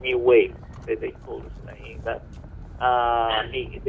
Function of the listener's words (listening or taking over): listening